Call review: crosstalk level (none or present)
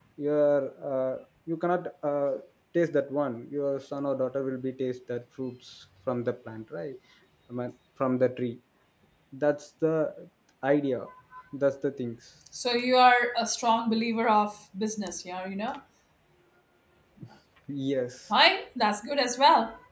none